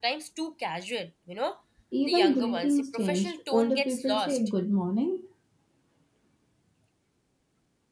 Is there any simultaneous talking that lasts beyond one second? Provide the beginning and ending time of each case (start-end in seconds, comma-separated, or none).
2.1-4.4